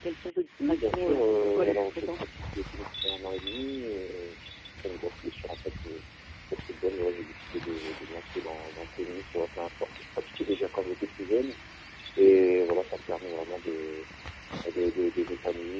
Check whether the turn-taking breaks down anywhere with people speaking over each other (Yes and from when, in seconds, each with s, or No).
Yes, from 0.6 s